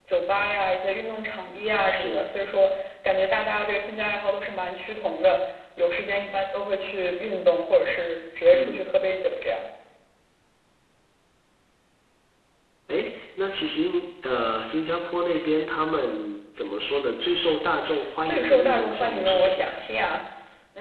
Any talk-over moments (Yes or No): Yes